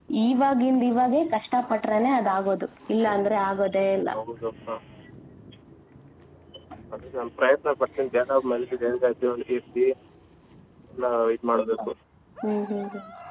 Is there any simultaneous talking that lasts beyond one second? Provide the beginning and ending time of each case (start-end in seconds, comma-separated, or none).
none